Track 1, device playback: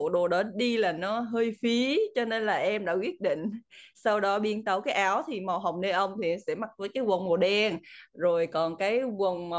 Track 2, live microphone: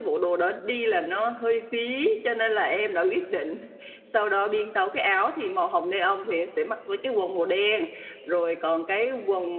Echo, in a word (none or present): present